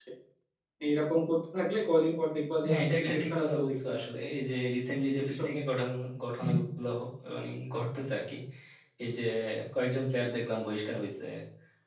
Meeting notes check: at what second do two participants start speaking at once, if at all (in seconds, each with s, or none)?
2.7 s